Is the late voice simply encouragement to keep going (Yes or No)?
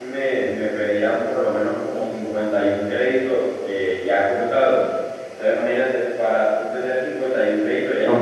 No